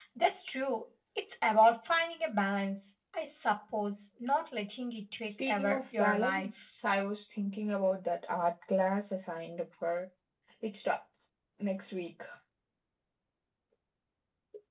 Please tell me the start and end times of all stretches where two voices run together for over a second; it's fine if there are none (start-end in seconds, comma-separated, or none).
5.2-6.6